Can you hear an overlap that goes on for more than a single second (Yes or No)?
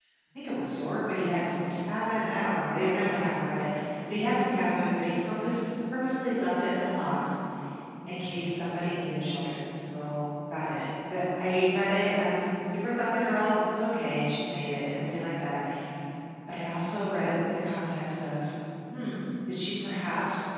No